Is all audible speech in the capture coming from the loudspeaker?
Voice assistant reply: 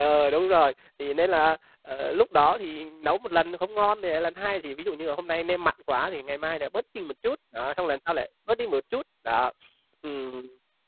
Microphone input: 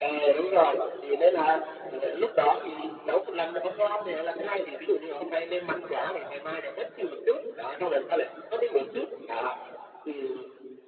Yes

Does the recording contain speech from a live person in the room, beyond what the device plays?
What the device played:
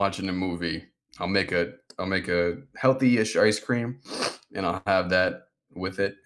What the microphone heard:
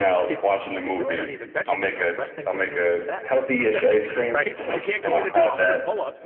Yes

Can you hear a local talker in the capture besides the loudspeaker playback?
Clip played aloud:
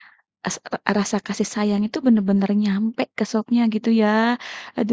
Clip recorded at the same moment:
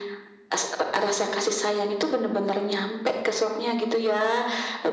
No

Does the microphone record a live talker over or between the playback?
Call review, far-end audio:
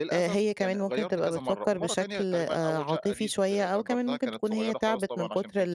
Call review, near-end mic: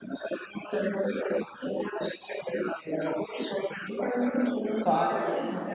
Yes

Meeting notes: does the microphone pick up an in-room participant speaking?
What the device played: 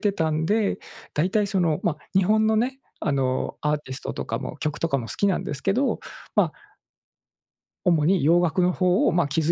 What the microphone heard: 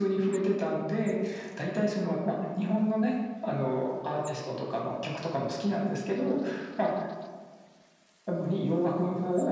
No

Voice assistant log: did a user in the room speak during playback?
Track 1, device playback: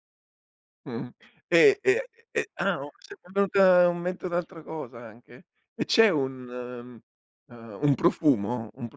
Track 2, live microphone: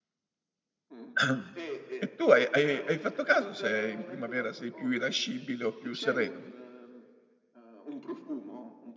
Yes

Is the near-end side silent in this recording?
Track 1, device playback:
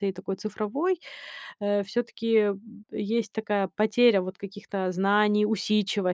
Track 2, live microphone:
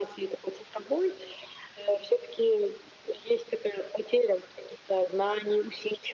Yes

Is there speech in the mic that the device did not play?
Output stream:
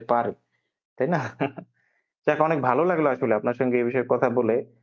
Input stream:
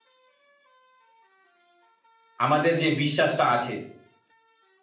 Yes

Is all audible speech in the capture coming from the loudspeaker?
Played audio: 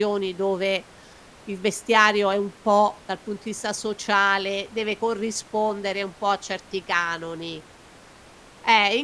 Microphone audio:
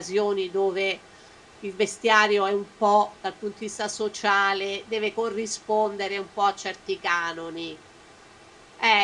Yes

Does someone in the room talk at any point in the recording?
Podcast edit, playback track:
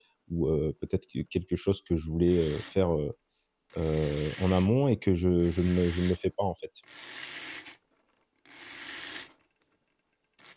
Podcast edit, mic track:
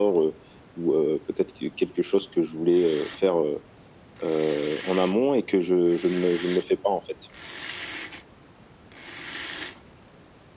No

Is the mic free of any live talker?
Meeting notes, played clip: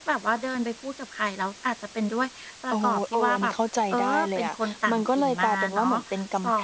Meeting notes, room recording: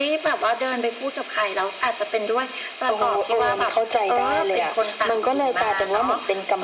Yes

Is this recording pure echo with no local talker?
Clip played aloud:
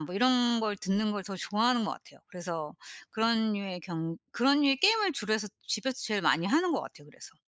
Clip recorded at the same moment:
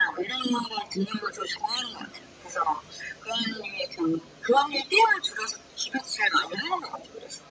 Yes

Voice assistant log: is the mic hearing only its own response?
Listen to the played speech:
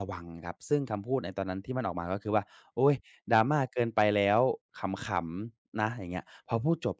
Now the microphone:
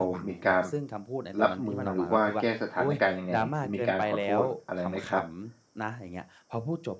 No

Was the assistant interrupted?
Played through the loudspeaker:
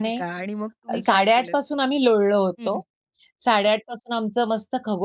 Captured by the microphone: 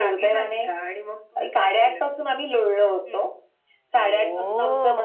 Yes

